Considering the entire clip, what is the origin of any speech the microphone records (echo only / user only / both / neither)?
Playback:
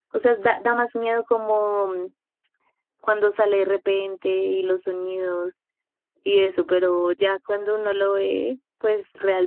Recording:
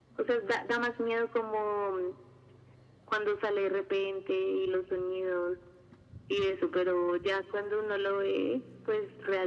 echo only